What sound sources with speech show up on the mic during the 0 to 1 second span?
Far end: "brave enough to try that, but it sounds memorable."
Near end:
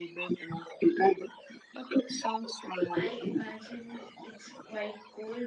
echo only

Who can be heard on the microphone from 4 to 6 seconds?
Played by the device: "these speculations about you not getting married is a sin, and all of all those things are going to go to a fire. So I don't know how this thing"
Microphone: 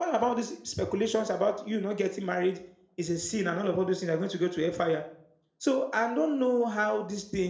echo only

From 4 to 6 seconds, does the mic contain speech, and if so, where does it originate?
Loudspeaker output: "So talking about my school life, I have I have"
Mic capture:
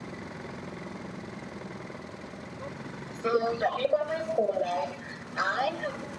echo only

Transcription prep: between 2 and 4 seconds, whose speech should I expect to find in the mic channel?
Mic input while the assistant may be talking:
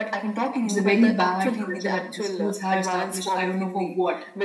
both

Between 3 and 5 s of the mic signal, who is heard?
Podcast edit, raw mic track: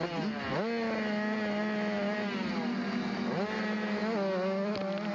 neither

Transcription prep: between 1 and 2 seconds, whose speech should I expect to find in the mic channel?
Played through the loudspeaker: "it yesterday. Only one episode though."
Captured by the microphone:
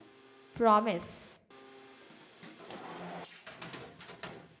user only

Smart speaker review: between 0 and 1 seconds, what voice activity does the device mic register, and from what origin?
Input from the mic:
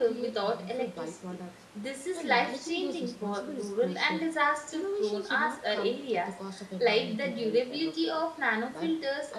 both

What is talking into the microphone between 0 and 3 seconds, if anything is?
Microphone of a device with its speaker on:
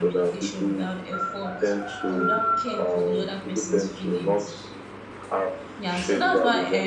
both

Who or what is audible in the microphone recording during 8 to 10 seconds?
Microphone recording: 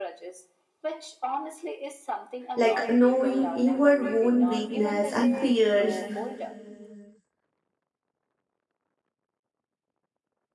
neither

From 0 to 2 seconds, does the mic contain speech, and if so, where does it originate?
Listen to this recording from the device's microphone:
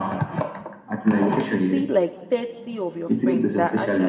both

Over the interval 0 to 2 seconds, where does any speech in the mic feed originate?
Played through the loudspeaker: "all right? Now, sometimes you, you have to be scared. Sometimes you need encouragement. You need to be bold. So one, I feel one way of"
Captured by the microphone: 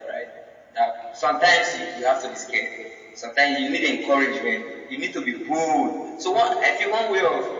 echo only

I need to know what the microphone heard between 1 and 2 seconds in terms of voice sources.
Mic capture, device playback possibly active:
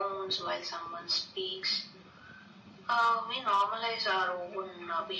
echo only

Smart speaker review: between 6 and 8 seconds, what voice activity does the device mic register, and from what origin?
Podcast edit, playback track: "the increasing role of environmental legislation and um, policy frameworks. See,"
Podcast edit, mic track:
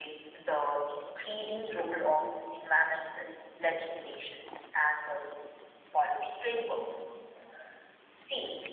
echo only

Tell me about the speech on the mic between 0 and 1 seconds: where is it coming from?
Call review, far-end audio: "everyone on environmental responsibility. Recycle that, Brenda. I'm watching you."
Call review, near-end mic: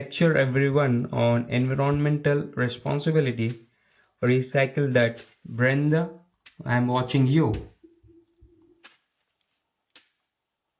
echo only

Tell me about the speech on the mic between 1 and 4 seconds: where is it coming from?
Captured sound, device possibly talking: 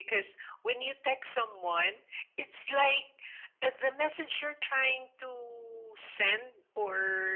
echo only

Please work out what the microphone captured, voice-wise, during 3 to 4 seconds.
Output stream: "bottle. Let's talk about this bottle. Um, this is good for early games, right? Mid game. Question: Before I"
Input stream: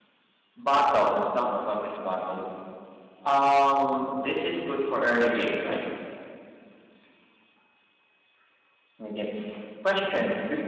echo only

